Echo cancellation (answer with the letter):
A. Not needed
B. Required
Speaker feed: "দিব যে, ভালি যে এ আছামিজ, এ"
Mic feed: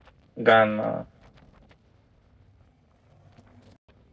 A